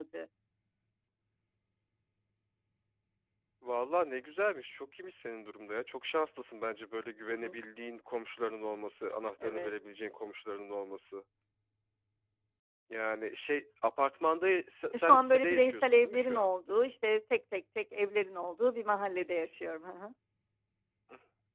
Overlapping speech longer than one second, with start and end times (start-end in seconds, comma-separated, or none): 14.9-16.5